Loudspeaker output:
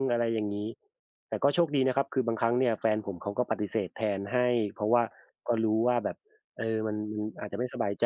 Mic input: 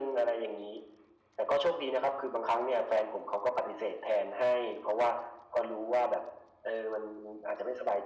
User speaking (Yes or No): No